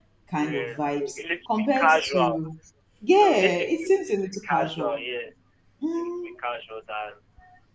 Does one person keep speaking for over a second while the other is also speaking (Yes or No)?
Yes